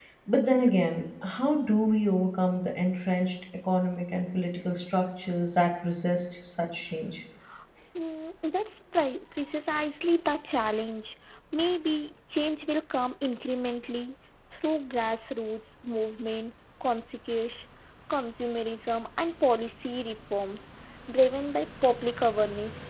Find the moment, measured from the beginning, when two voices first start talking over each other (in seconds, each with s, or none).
none